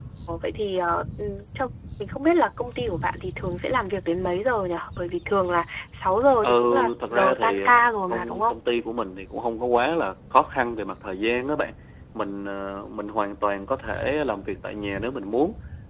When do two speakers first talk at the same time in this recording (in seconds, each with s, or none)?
6.4 s